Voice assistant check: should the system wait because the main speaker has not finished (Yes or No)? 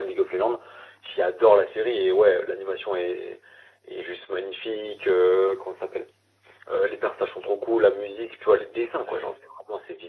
Yes